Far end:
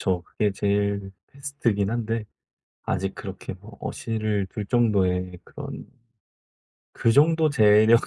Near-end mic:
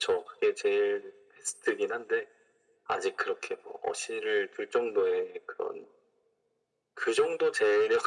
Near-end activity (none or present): none